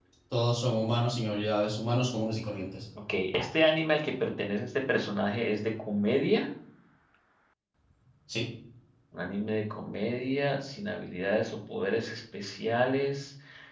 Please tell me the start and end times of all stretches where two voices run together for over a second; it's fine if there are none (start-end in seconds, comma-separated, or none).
none